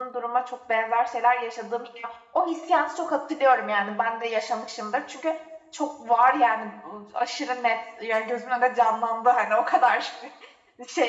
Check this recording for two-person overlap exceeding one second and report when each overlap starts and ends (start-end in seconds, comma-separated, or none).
none